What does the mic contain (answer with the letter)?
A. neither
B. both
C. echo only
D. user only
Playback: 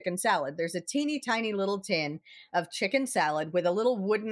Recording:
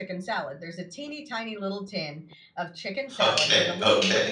B